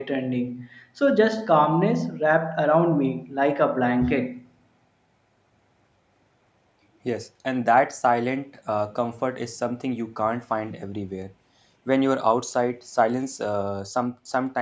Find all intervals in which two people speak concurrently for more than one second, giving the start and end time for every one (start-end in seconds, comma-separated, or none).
none